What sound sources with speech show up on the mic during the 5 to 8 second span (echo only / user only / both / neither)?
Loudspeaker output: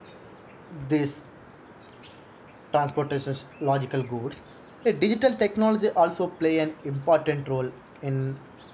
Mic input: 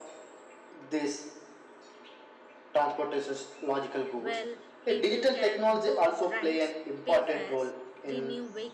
both